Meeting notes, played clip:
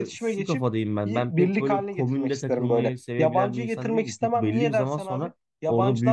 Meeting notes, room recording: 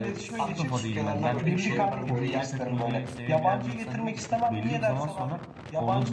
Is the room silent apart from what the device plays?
No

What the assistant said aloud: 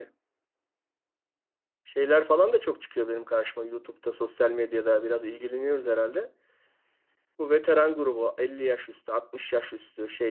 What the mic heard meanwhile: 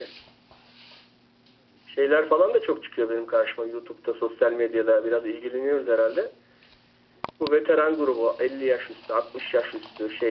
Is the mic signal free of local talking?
Yes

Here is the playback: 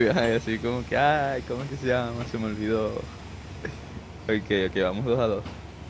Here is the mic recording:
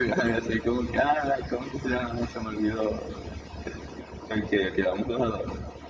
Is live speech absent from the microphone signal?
Yes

